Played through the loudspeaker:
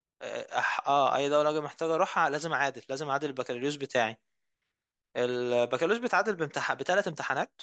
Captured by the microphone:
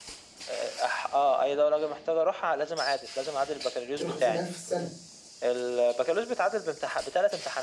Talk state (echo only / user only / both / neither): both